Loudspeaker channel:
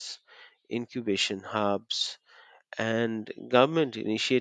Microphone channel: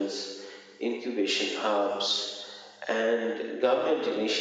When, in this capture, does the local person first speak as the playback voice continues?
none

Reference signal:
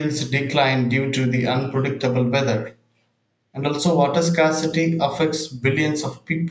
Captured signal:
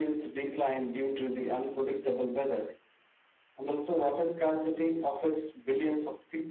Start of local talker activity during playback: none

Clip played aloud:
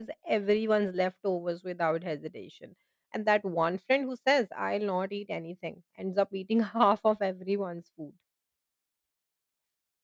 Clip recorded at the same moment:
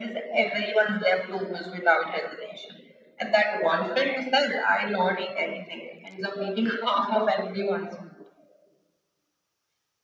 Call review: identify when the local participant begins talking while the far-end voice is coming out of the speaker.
none

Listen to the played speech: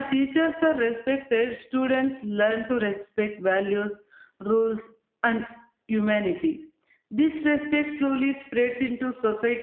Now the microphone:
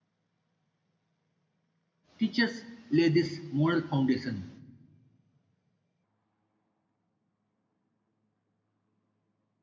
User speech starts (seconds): 2 s

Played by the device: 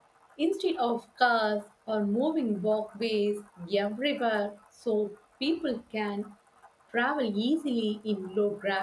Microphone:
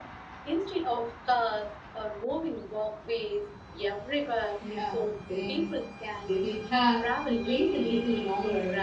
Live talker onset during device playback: 5 s

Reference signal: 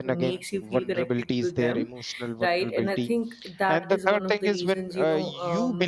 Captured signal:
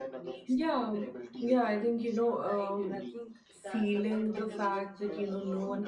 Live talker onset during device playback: 0 s

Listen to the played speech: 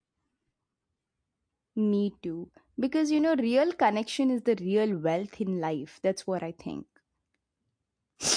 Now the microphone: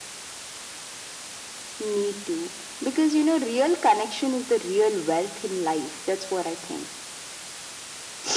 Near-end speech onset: none

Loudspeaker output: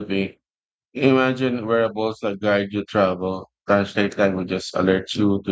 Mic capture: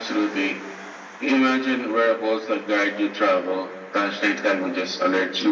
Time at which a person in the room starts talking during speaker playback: none

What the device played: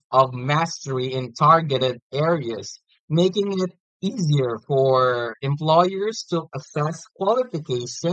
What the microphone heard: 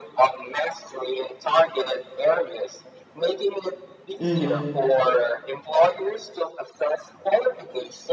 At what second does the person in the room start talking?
4 s

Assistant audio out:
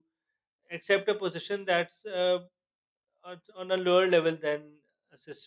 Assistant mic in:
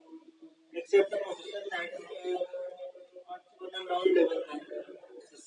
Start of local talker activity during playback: none

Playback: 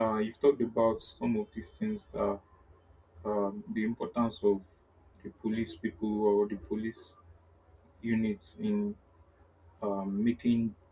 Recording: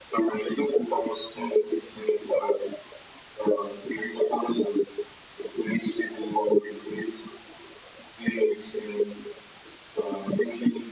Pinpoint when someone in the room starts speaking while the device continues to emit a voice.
none

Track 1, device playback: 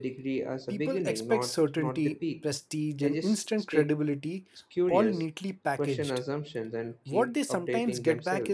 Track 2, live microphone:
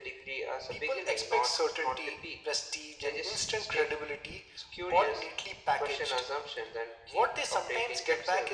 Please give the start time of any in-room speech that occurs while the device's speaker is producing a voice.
none

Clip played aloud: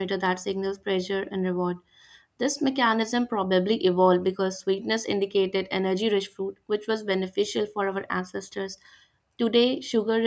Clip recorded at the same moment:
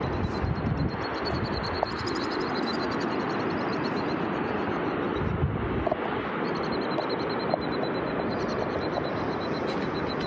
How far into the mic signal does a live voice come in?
none

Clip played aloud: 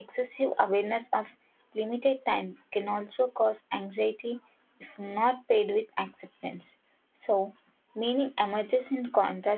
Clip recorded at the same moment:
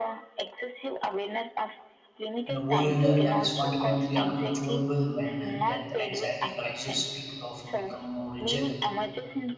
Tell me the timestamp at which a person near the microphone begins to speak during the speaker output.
2 s

